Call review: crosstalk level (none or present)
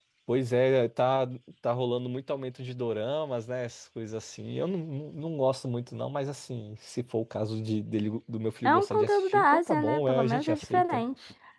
present